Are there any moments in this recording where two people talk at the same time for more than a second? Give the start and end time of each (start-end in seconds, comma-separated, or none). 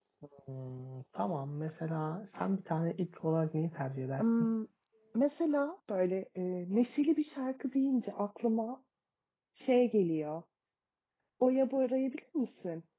none